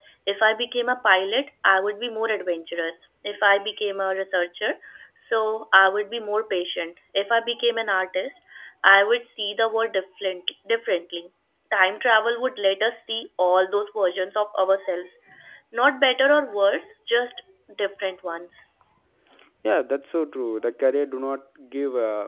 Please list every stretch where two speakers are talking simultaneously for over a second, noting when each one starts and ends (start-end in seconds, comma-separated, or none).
none